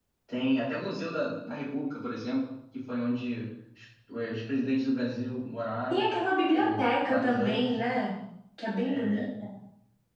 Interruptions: present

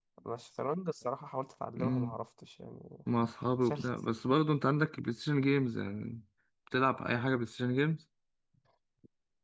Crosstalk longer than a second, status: none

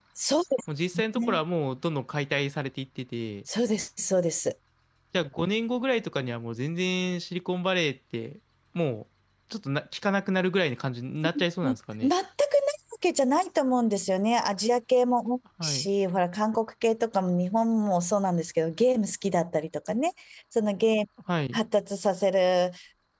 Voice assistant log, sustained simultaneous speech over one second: none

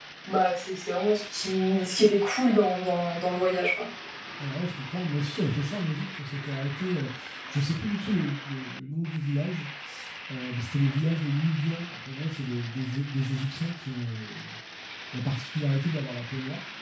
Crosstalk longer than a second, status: none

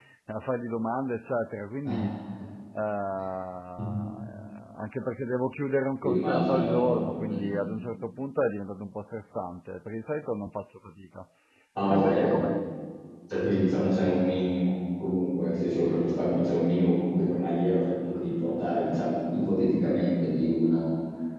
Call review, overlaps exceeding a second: present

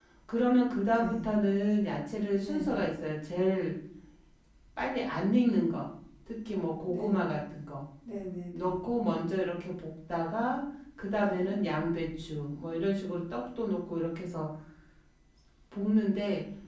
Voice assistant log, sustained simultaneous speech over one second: none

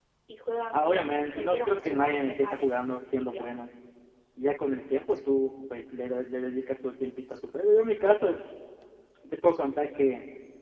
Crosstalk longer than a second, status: present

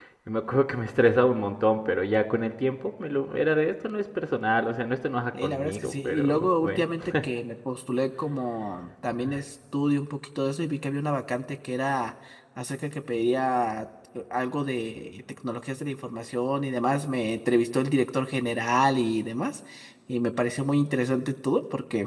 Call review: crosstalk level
present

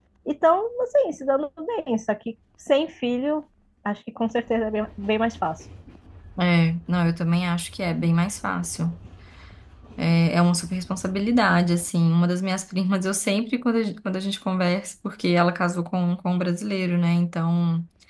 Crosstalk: none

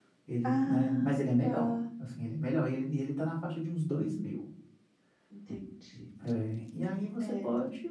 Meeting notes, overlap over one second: present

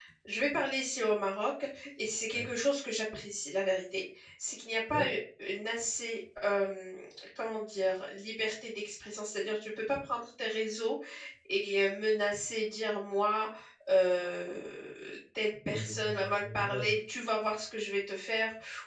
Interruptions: present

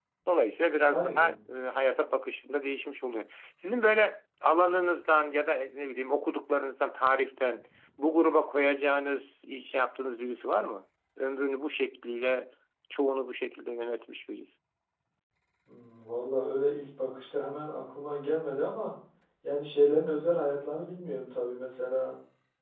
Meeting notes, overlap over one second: none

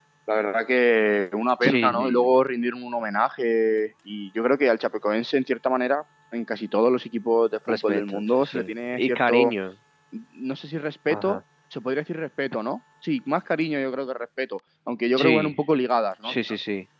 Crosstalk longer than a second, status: present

